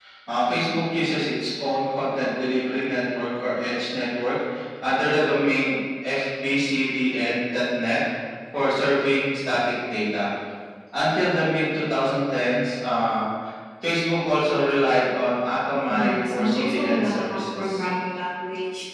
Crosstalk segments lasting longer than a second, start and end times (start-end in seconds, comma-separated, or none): 15.9-17.9